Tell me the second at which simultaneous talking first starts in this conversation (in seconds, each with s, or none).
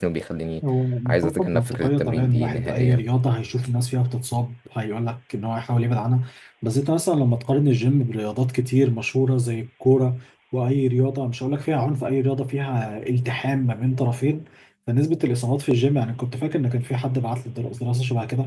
1.1 s